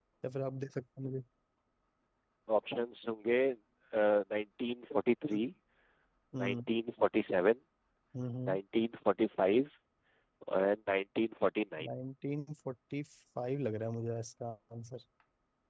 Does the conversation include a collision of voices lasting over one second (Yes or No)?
No